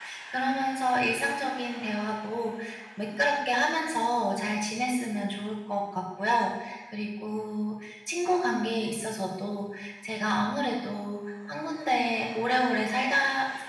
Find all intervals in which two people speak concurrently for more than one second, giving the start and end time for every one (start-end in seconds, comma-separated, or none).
none